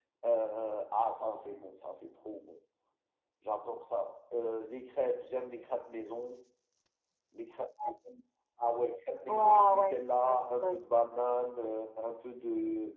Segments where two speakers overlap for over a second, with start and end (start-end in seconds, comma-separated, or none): 9.3-10.9